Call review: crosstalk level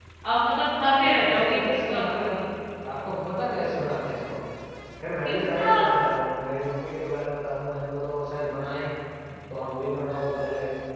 present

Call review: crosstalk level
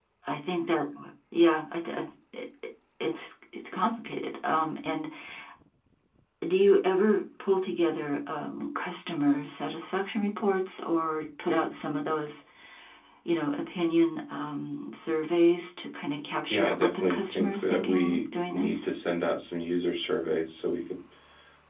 present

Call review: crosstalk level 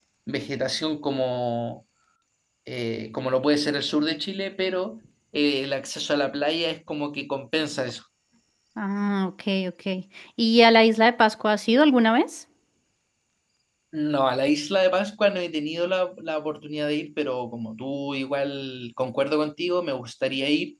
none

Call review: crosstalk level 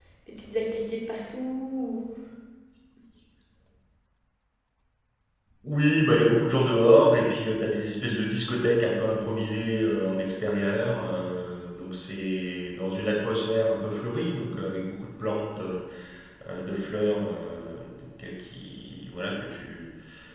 none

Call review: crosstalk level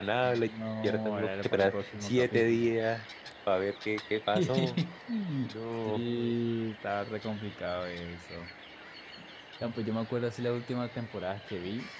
present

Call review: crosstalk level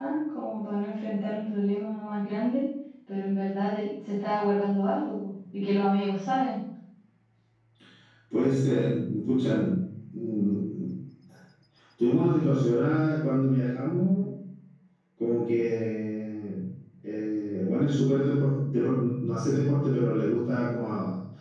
none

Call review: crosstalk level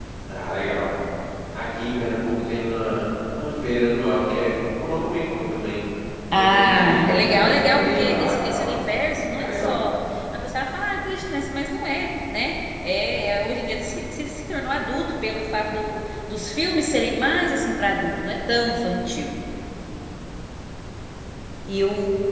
present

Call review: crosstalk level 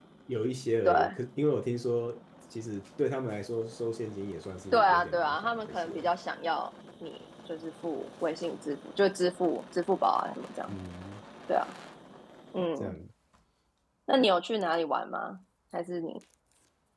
present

